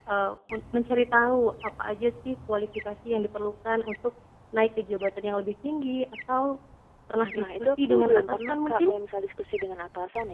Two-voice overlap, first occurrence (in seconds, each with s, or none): 7.3 s